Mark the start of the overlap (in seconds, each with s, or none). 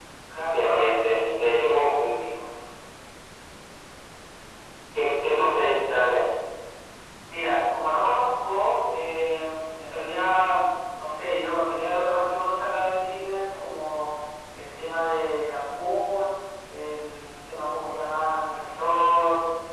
0.5 s